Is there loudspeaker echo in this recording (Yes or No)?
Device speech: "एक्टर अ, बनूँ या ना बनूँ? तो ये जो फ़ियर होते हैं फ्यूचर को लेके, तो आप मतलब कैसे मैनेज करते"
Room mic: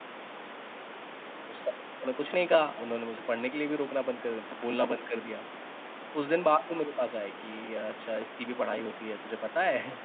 No